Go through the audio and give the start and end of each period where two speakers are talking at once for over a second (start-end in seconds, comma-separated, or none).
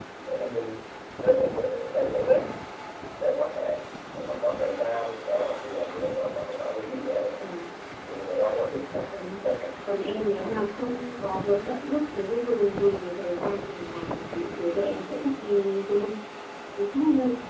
none